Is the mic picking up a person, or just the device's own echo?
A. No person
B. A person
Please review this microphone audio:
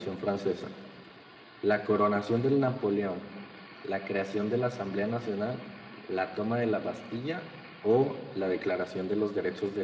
A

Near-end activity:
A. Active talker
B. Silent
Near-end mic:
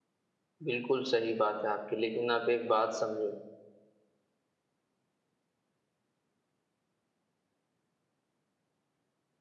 A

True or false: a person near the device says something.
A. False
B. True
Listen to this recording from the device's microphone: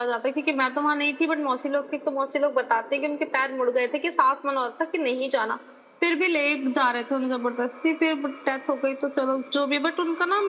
A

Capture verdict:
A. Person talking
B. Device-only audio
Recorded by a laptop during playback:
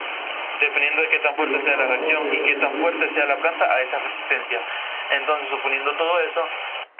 A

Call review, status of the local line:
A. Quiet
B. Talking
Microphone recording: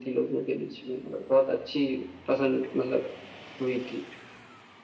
A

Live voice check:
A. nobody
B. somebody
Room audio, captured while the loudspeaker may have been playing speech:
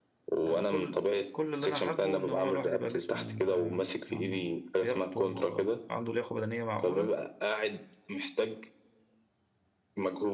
B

